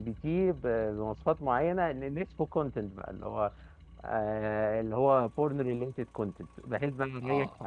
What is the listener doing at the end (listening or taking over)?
listening